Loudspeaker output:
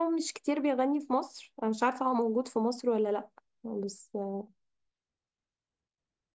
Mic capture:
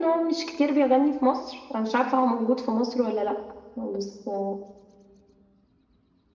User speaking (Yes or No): No